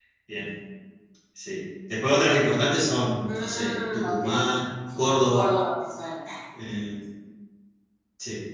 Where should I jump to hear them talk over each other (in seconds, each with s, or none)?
3.3 s